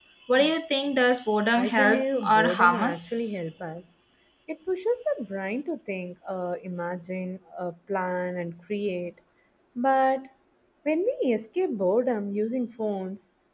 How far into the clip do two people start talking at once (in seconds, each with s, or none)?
1.6 s